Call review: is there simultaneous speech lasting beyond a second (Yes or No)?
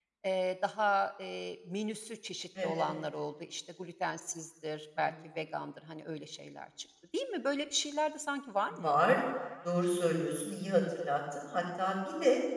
No